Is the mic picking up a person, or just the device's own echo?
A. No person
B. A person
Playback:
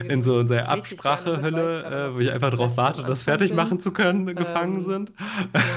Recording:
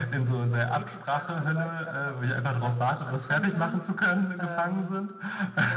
A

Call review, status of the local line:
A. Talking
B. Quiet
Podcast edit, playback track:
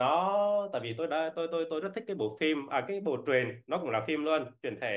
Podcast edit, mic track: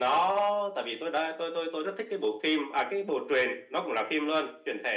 B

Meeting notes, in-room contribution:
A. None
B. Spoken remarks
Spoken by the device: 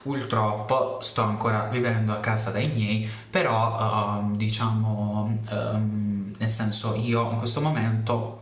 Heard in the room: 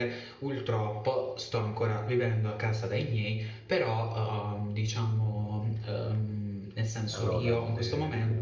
B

